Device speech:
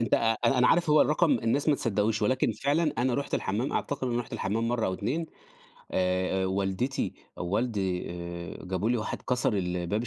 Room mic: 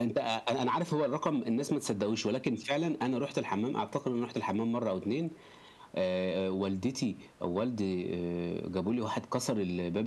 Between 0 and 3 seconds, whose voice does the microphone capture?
echo only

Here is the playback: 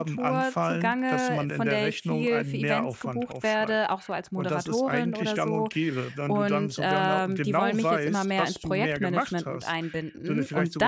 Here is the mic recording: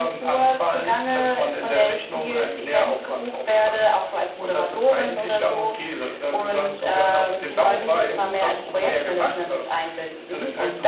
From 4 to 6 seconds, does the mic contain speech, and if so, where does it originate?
echo only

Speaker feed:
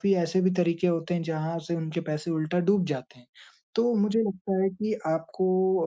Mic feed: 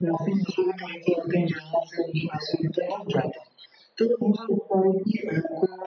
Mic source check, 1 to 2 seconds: echo only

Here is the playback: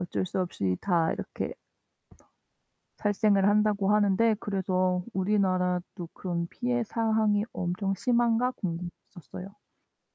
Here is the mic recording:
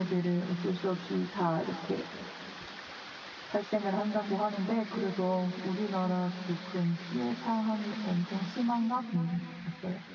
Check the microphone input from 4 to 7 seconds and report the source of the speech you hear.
echo only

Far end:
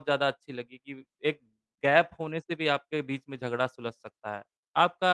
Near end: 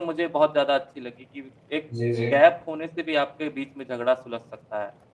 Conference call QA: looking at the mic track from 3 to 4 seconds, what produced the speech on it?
echo only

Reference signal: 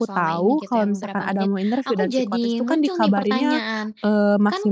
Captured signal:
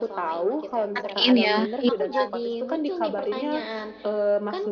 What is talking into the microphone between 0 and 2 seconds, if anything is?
both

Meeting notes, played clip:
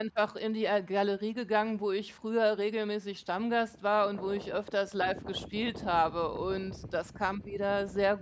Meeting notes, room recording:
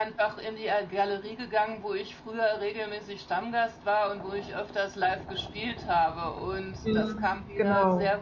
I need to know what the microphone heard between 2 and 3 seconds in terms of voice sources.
echo only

